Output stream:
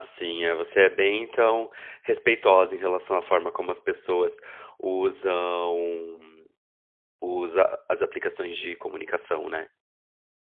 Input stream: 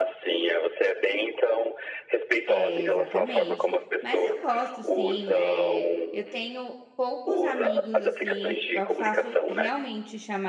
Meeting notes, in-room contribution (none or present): present